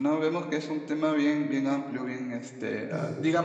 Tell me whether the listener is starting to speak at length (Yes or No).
No